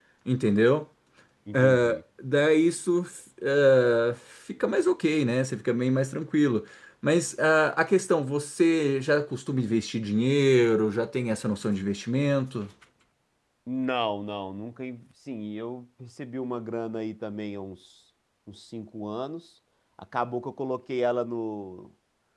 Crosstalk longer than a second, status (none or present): none